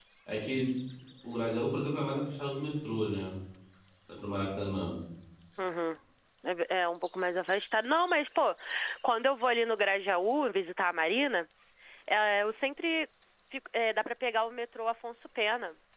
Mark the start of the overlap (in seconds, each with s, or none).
none